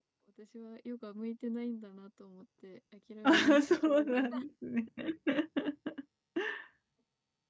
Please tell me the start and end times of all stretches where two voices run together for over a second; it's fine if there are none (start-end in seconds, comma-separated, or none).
none